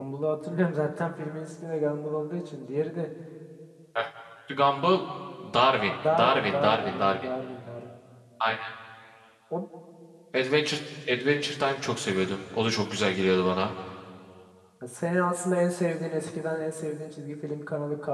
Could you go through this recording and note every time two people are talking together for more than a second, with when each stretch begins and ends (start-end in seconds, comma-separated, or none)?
5.9-7.3